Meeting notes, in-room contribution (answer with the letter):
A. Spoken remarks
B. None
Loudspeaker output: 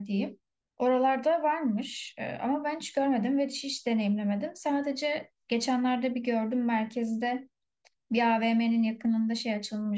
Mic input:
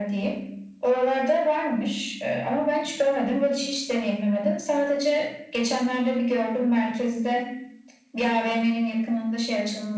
B